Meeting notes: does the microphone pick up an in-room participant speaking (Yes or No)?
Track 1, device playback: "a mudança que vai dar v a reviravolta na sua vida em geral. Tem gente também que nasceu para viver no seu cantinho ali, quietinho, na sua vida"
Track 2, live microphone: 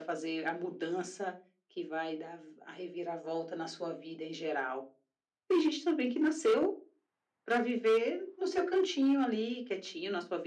No